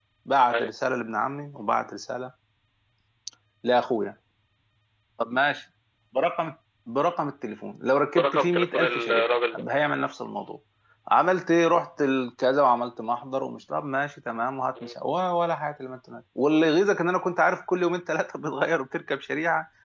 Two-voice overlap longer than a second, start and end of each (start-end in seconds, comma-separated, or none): 8.1-9.7